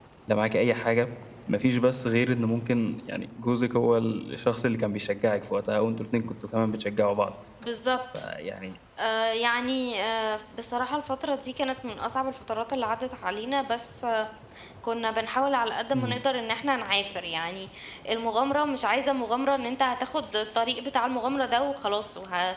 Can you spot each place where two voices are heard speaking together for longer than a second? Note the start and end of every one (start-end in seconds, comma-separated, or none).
none